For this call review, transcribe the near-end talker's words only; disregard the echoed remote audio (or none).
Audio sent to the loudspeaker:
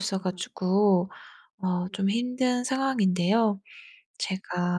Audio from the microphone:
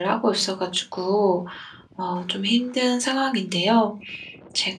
none